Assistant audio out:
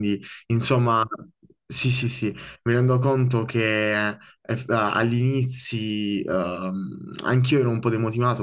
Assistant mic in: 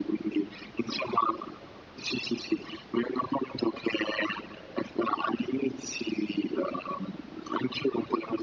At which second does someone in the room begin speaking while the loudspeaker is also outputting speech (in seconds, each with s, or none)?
none